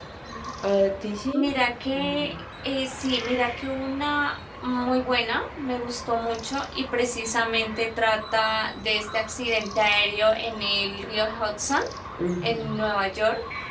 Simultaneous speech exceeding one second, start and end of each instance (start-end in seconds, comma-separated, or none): none